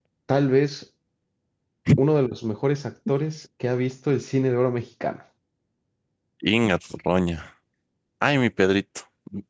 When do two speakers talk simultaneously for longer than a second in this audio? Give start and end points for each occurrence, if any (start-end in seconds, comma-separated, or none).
none